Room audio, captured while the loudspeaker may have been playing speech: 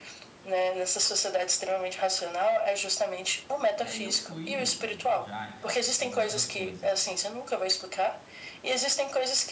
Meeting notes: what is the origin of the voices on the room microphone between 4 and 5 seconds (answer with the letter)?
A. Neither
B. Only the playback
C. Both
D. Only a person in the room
C